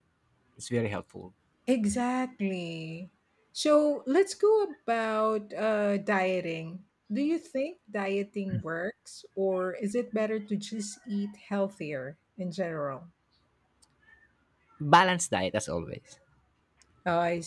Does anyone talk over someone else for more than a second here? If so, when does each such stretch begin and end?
none

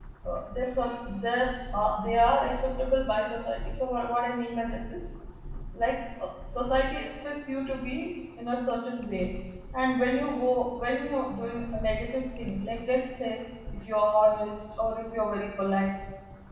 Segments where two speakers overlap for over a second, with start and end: none

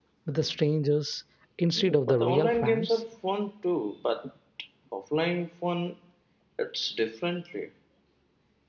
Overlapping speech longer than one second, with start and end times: 1.8-3.0

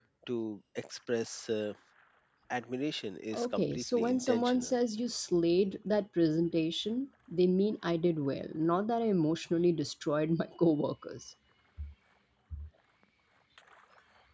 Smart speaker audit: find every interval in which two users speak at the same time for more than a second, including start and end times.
3.3-4.7

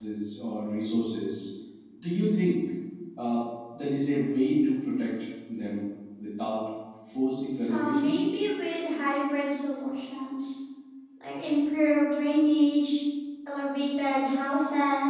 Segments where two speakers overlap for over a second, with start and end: none

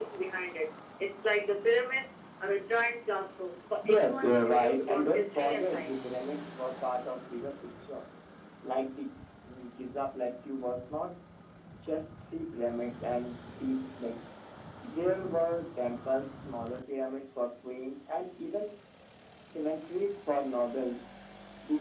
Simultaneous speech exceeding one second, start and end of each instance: 3.9-6.1

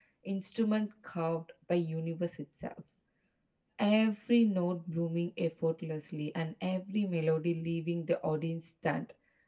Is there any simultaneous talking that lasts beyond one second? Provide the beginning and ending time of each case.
none

